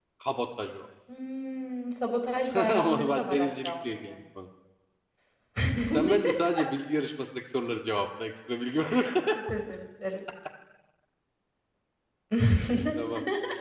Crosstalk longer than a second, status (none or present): present